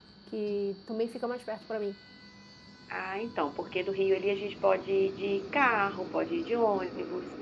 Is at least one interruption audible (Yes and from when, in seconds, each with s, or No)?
No